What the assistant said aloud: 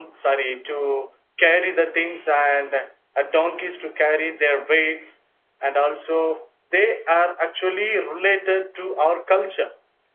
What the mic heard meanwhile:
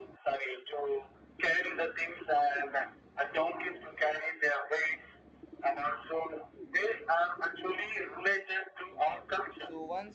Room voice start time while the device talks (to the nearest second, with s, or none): 9 s